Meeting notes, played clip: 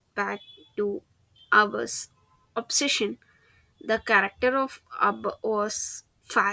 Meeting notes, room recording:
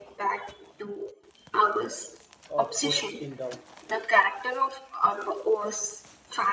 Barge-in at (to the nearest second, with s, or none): 3 s